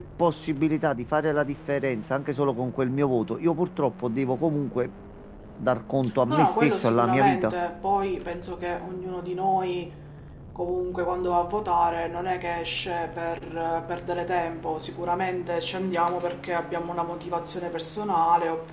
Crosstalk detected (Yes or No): Yes